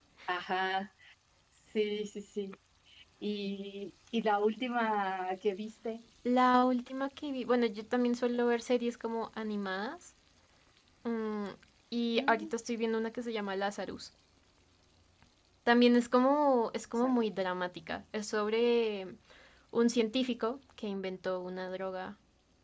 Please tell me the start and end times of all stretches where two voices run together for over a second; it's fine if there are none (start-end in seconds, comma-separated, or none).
none